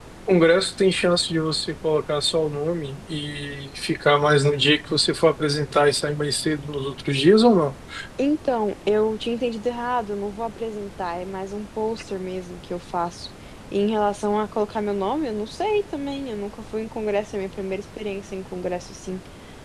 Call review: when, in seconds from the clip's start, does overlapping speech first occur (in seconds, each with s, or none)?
none